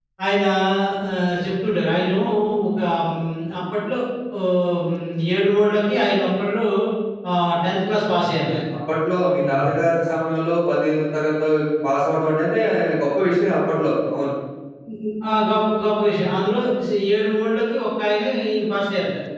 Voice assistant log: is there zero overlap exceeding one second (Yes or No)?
Yes